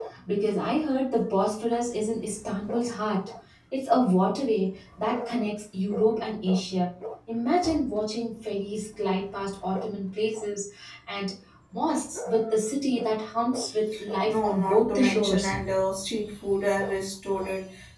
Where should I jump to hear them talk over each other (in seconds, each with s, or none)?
14.2 s